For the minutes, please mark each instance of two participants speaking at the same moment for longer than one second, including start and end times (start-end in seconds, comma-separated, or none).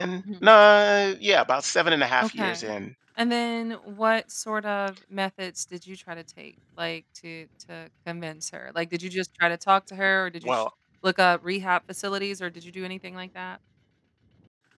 none